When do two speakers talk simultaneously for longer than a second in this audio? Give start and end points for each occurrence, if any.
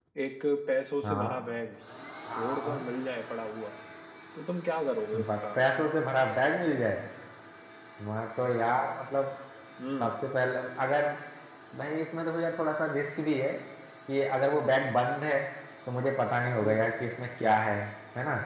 none

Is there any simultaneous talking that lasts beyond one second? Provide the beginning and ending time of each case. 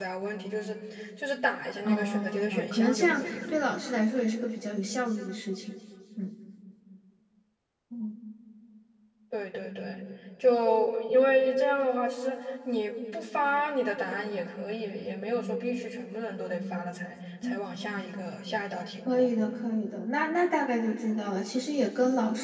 1.8-3.3

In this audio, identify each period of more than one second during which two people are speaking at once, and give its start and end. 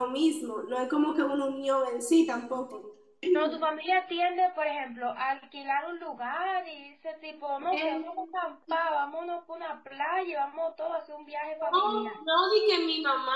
none

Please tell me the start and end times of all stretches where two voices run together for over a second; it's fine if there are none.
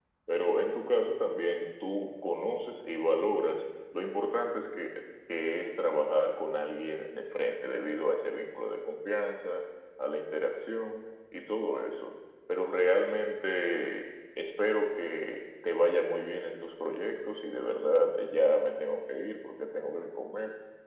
none

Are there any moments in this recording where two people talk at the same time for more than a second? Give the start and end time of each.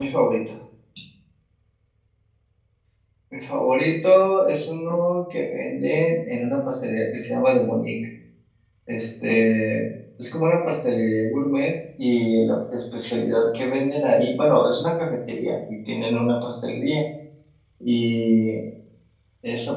none

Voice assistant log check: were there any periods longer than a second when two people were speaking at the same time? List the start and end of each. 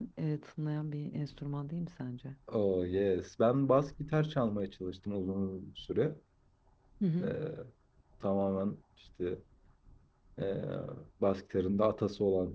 none

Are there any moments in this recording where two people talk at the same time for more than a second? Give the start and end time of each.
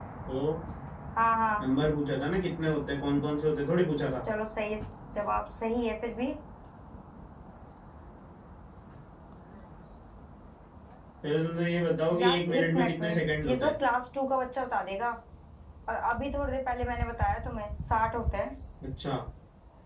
12.2-13.7

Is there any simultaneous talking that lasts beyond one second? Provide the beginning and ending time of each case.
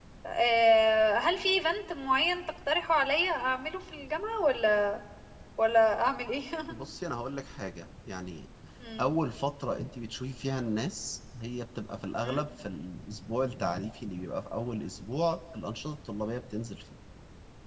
none

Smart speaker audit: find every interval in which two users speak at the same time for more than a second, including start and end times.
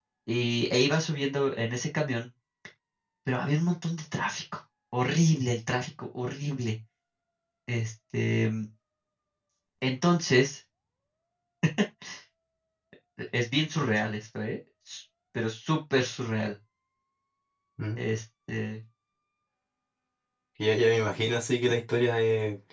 none

